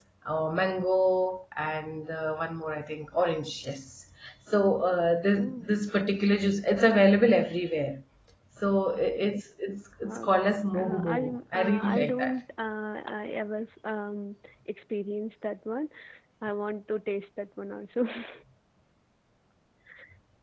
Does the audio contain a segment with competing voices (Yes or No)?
Yes